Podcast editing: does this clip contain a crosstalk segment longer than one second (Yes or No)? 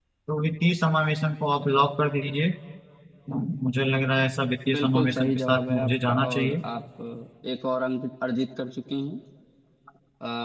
Yes